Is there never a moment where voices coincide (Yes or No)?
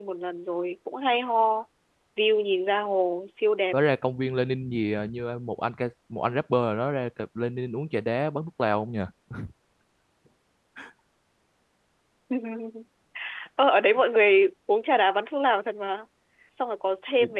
Yes